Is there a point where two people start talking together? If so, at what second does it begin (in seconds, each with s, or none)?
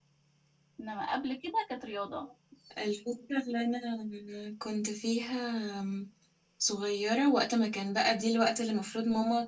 none